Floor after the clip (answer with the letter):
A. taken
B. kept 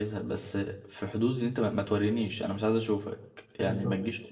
B